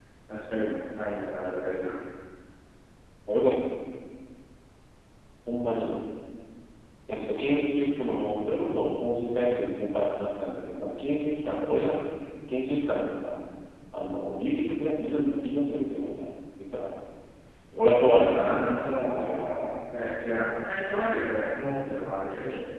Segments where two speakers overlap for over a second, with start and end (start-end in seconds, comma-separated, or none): 17.9-19.5